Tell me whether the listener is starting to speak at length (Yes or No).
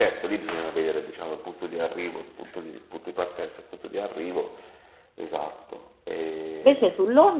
Yes